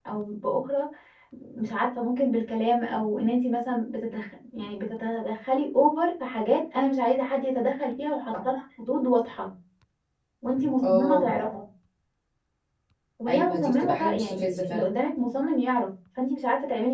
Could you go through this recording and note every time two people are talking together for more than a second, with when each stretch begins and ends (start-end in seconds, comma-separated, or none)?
13.3-14.9